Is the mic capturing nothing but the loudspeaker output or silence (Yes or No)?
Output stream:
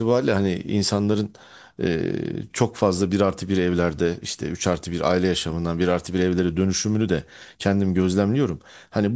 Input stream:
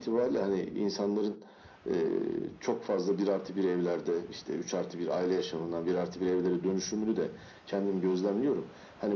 Yes